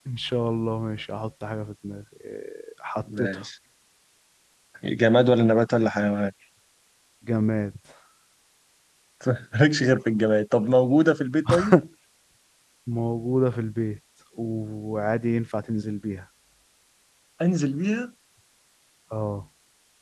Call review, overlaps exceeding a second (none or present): none